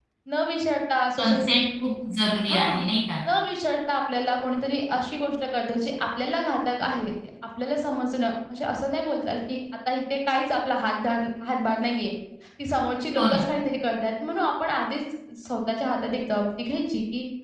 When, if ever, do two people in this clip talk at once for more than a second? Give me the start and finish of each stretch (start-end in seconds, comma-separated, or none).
none